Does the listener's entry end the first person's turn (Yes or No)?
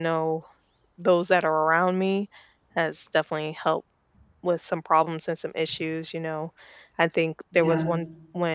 No